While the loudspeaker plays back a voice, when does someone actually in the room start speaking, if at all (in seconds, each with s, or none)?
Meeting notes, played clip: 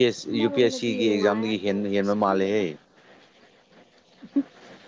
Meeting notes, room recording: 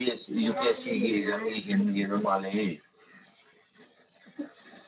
0.5 s